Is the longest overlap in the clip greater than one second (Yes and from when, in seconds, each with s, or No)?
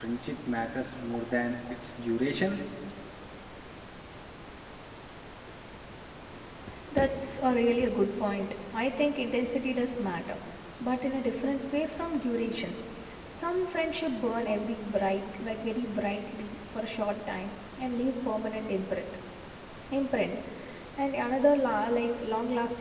No